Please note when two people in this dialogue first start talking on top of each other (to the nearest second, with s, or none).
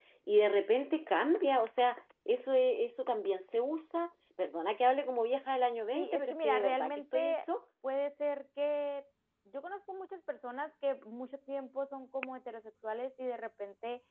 6 s